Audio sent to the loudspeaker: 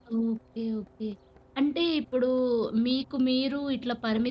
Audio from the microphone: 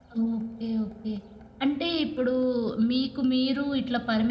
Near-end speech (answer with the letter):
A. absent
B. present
A